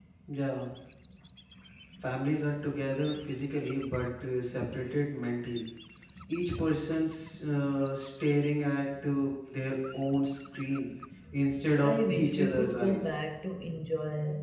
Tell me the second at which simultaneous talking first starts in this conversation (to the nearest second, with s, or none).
12 s